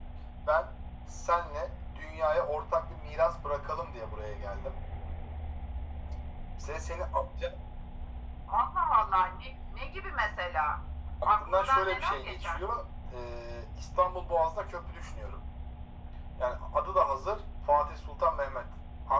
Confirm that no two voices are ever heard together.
No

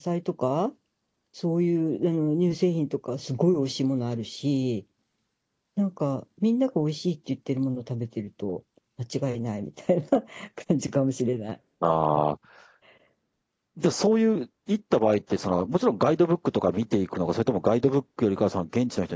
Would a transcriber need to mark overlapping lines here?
No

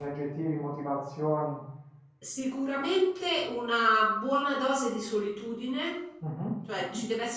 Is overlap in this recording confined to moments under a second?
Yes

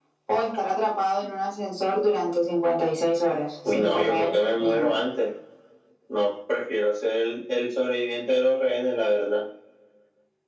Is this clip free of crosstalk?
No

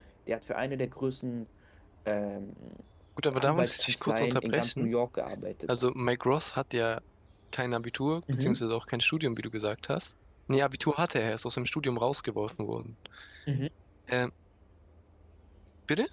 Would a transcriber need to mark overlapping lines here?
Yes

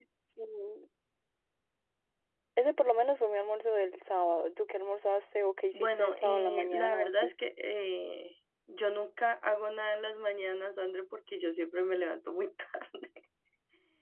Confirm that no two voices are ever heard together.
No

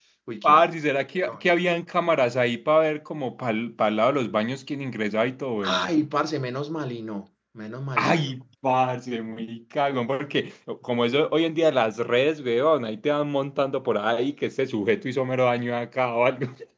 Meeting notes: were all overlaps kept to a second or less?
Yes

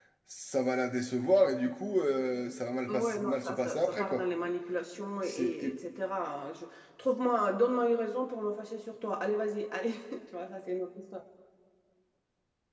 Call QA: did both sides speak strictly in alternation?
No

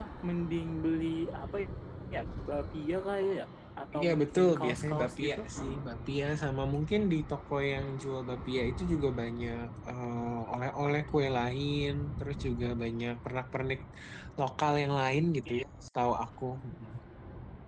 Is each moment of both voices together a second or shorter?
No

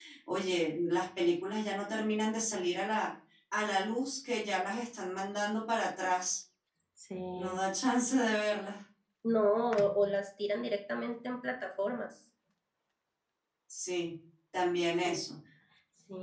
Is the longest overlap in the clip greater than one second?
No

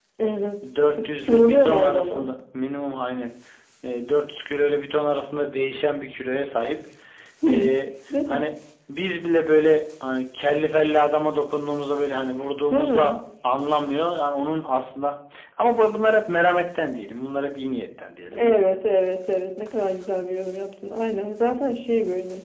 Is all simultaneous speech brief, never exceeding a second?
No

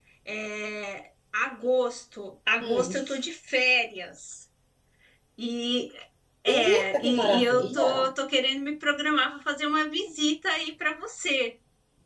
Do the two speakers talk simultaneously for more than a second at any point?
Yes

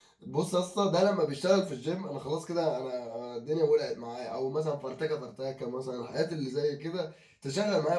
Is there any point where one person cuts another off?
No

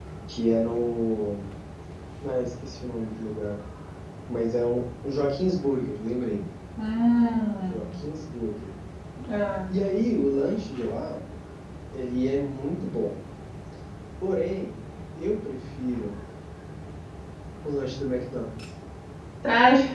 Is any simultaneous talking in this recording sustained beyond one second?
No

